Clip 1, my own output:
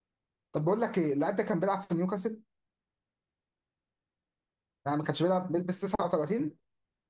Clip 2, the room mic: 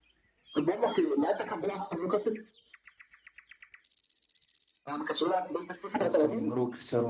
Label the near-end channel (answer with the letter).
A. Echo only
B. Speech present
B